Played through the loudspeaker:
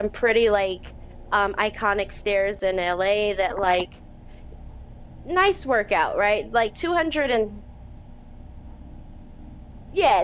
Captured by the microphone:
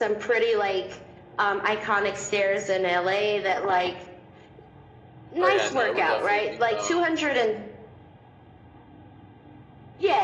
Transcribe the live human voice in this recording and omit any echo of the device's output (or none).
Oh, yeah, no, it would definitely become